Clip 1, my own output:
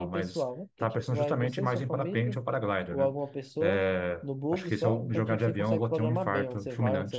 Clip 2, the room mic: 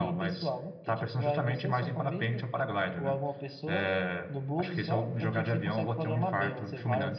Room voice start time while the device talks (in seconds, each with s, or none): none